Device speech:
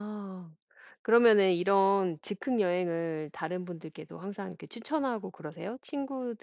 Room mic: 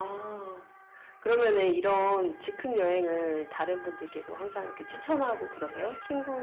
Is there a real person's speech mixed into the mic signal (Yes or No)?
No